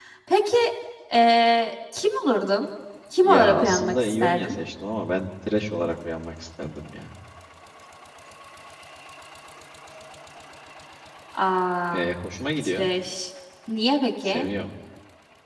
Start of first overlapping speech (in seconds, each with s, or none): 3.2 s